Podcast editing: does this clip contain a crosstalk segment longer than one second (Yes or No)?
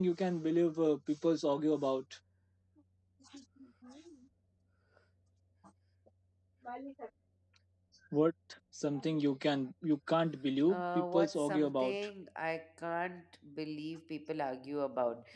Yes